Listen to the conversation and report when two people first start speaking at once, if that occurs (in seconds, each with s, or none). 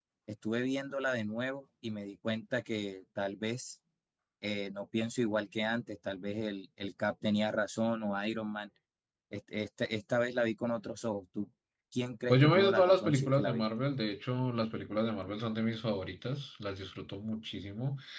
12.3 s